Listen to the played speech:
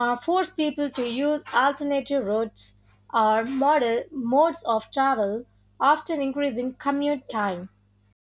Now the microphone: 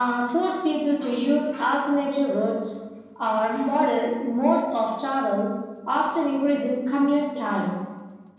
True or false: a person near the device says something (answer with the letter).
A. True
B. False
B